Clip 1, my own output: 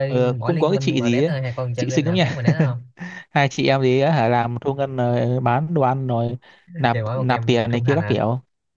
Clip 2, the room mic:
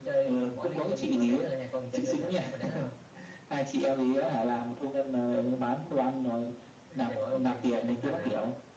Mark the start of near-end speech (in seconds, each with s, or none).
none